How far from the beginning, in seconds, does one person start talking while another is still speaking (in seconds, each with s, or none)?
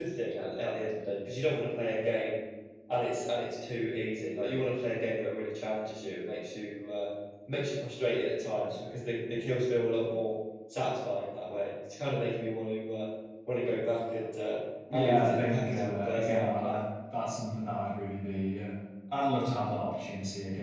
14.9 s